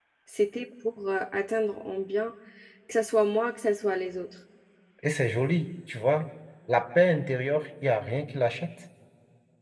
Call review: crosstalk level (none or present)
none